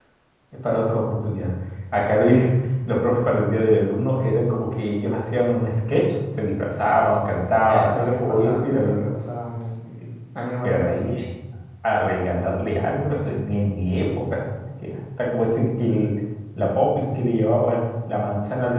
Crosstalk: present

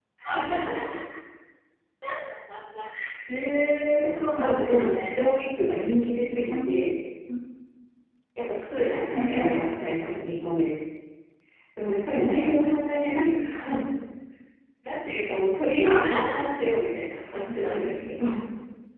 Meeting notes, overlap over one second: present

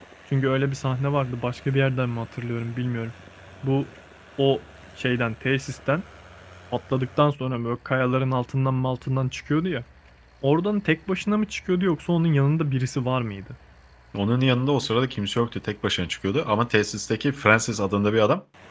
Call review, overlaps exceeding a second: none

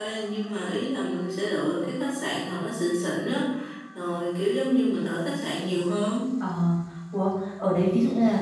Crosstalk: none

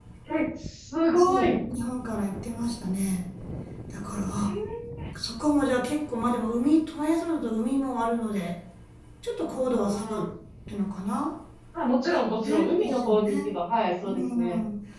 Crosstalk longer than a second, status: present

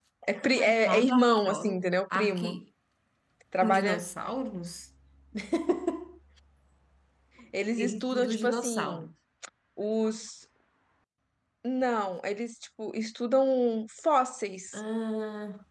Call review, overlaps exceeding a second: present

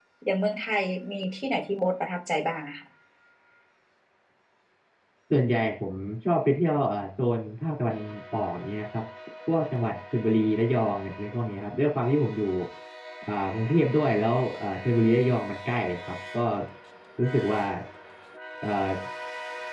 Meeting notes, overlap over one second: none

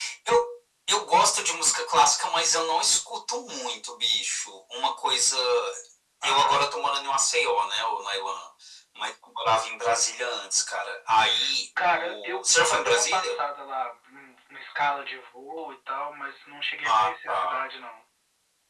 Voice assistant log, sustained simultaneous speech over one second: present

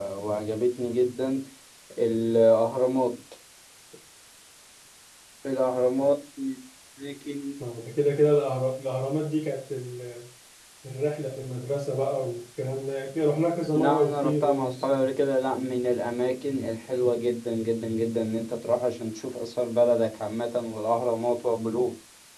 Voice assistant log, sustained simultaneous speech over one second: present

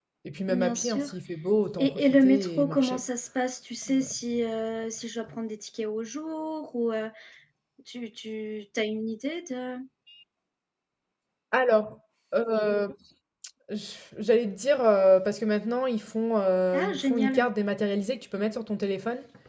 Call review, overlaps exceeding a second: present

